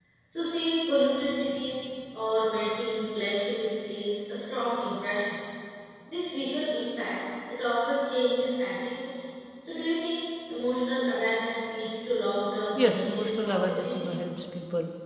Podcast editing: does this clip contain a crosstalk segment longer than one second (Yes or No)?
Yes